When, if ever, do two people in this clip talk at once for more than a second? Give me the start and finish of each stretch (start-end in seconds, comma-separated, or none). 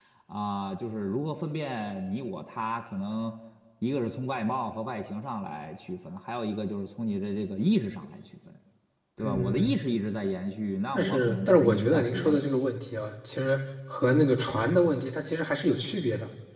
10.9-12.4